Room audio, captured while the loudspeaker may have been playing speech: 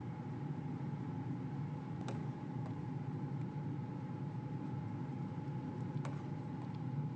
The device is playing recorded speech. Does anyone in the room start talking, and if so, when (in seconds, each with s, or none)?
none